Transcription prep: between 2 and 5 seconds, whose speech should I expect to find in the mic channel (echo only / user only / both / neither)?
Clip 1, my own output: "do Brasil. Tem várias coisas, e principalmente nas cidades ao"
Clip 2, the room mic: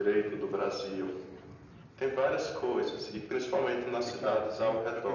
both